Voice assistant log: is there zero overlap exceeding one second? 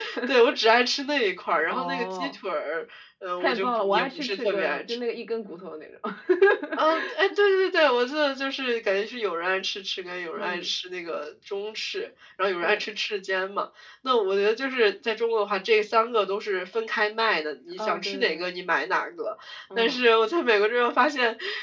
No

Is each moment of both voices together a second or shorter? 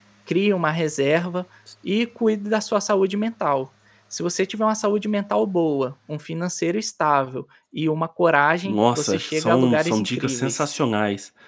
No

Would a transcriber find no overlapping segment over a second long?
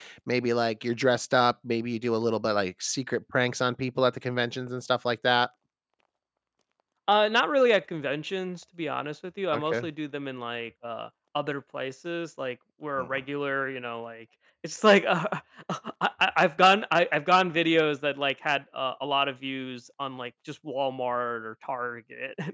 Yes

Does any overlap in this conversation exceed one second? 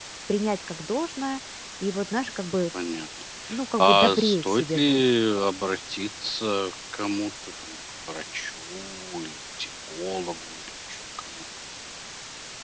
Yes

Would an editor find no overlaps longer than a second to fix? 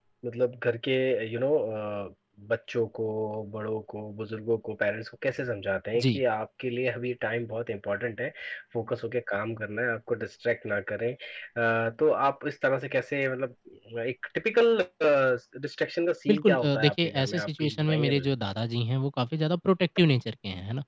No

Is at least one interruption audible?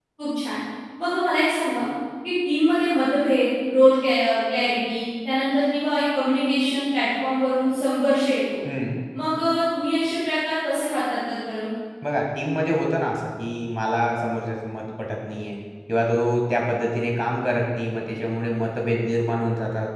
No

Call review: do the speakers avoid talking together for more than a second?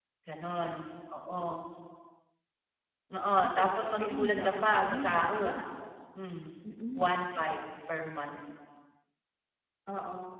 No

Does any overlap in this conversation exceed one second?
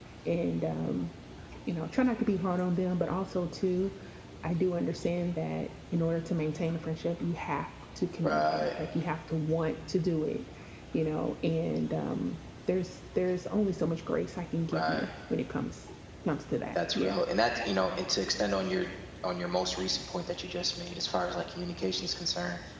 No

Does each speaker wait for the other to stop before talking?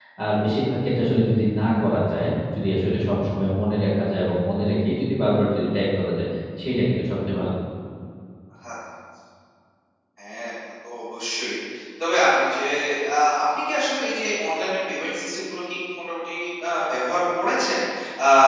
Yes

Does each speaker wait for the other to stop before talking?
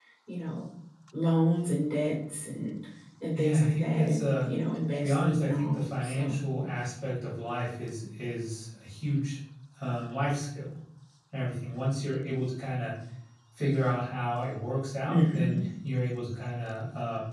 No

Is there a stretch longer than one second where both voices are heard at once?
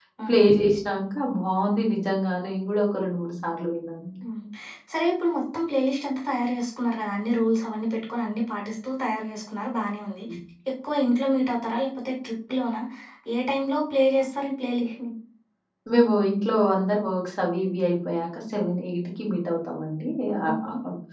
No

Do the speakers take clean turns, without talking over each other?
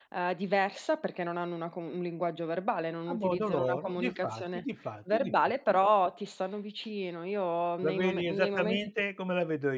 No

